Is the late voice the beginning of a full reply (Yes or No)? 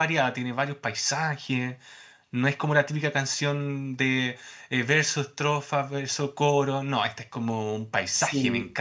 Yes